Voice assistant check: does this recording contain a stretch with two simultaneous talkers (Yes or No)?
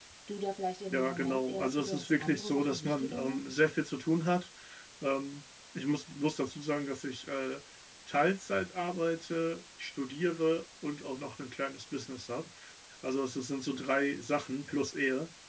Yes